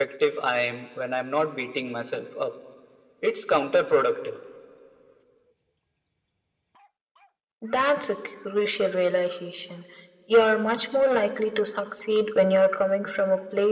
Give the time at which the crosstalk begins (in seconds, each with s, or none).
none